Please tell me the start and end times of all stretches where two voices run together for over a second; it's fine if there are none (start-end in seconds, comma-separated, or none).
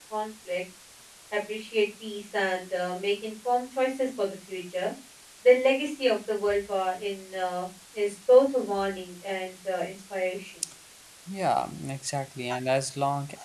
none